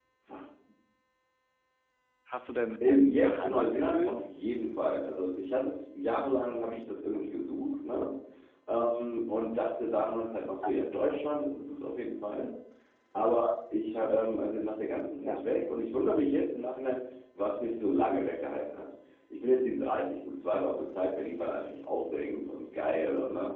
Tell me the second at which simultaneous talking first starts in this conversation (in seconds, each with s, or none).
2.9 s